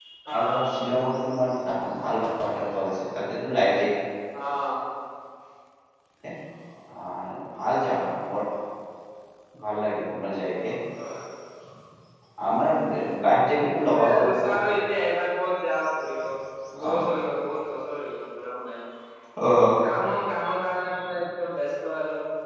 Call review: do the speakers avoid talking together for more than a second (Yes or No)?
Yes